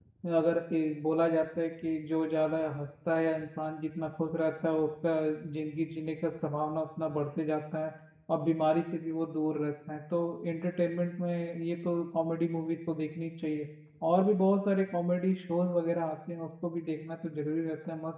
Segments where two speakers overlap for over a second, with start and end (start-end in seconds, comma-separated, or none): none